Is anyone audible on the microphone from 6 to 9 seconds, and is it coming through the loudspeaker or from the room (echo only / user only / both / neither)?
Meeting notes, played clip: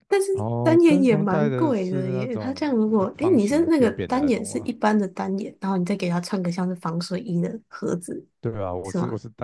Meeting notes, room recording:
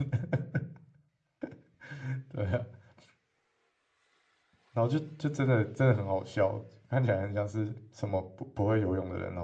user only